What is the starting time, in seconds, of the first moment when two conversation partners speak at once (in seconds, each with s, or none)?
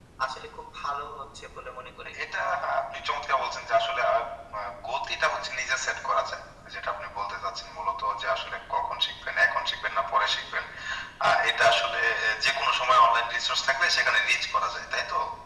none